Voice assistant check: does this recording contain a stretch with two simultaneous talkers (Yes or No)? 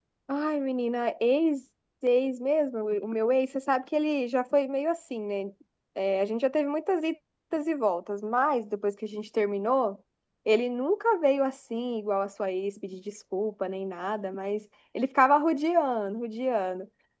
No